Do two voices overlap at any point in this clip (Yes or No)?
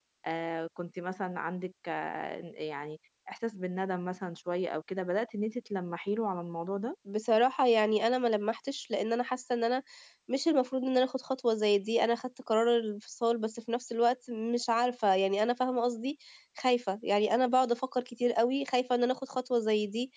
No